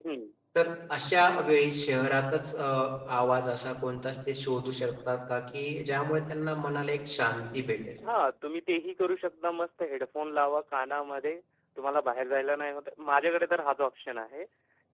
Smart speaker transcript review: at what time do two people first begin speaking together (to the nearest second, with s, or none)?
none